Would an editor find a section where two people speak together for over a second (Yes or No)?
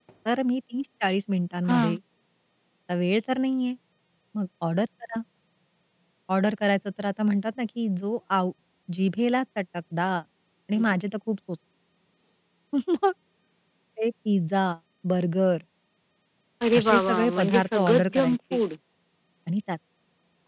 Yes